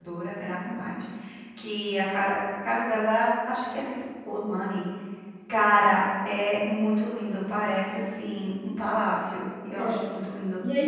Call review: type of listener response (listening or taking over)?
taking over